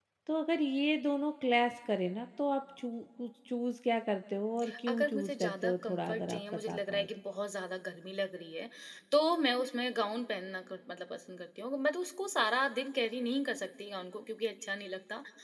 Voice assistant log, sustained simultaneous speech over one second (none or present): present